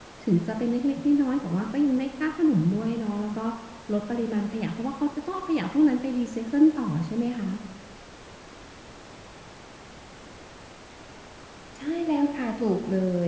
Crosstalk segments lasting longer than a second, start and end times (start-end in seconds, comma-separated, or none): none